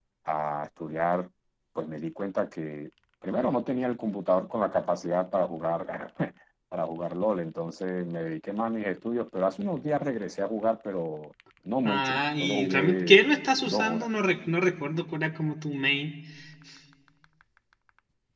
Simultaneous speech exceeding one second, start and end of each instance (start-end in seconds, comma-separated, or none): 11.8-13.2